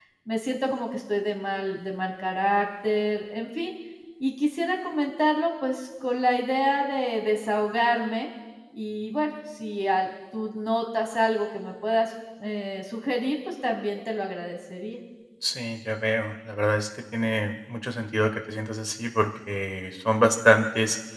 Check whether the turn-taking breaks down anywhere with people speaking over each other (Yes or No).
No